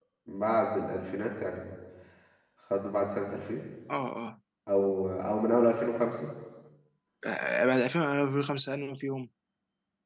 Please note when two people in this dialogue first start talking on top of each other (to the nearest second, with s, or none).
none